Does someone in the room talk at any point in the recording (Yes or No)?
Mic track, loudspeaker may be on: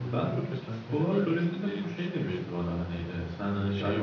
Yes